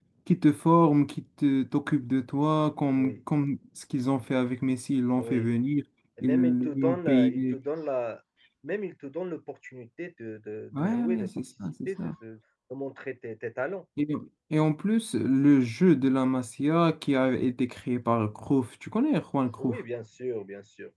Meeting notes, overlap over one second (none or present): present